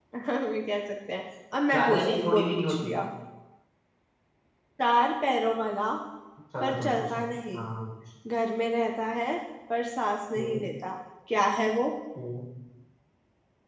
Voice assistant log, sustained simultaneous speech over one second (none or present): present